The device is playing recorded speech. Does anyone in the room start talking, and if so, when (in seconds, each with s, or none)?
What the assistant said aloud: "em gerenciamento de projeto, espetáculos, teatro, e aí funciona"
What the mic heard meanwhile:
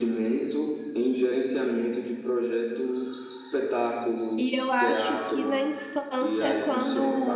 4.4 s